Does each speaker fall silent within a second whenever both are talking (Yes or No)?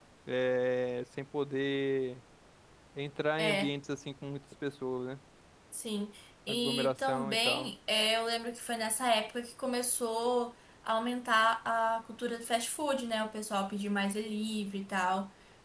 No